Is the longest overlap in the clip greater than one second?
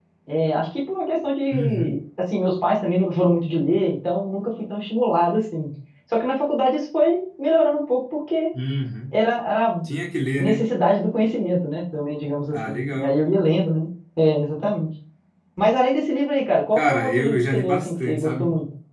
Yes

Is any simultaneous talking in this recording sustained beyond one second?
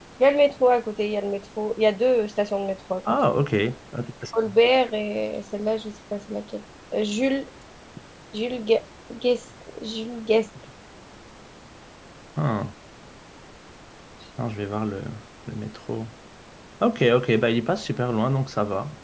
No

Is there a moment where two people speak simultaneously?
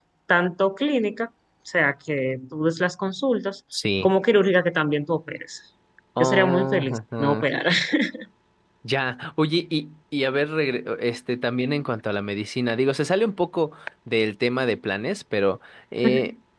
Yes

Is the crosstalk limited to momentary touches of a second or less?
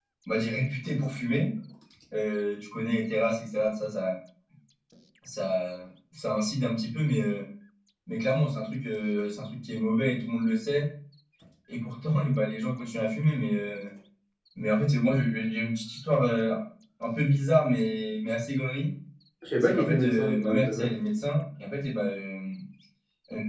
No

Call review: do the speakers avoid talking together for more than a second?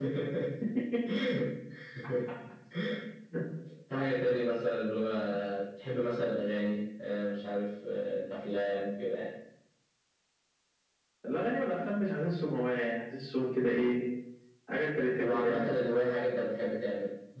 Yes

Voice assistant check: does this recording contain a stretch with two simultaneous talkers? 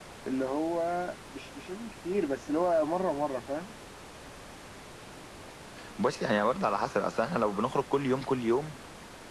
No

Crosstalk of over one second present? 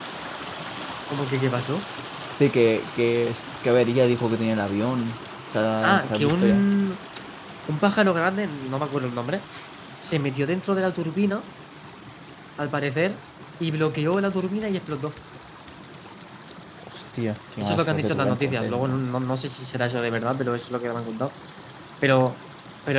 Yes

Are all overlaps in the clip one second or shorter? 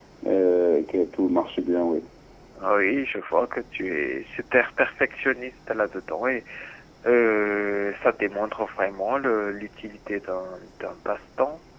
Yes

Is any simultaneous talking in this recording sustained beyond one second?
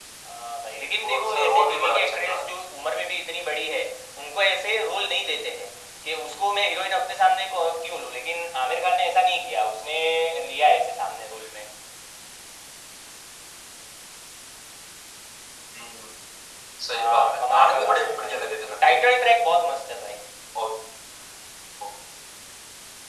Yes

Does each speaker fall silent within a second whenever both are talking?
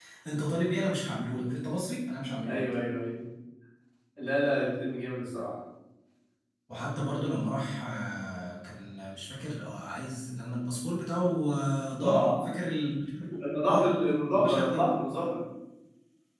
Yes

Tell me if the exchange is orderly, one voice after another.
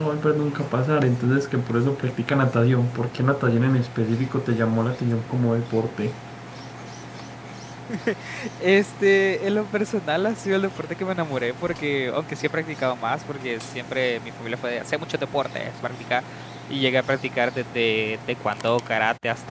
Yes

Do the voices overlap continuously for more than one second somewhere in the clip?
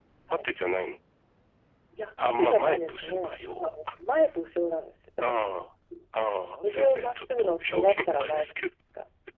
Yes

